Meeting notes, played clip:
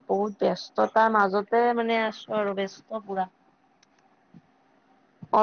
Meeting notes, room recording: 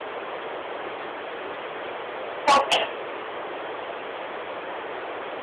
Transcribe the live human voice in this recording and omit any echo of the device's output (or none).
তাকে